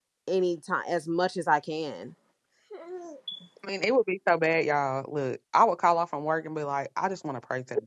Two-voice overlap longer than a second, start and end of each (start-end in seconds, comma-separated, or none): none